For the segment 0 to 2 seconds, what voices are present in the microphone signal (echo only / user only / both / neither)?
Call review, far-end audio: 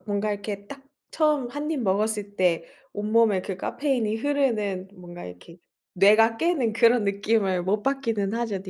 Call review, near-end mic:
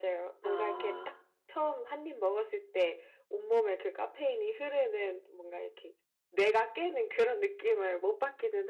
both